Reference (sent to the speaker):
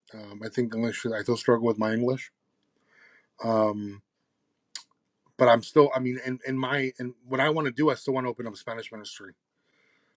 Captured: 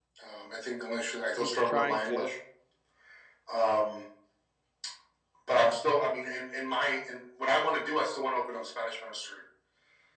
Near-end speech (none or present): present